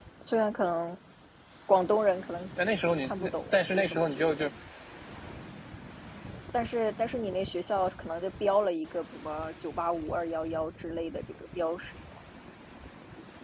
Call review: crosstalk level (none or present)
present